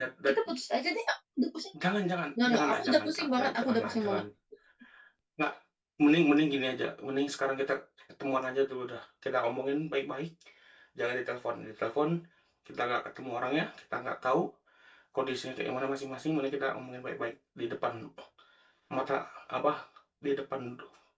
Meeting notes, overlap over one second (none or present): present